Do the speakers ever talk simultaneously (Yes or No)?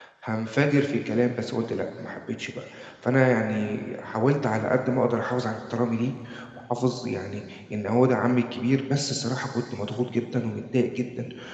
No